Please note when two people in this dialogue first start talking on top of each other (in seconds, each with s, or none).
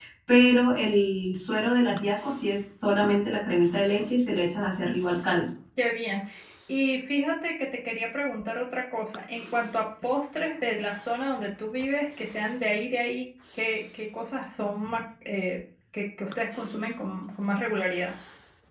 none